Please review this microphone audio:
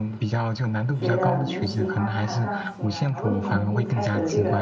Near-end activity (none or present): present